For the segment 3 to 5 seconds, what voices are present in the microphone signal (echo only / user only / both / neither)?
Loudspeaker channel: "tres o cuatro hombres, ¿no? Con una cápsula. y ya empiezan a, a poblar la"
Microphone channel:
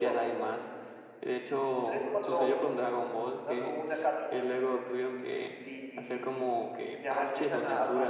both